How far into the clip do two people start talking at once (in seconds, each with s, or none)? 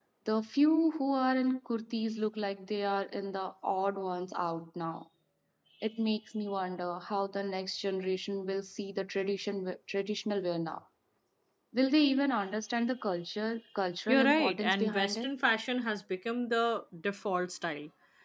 14.1 s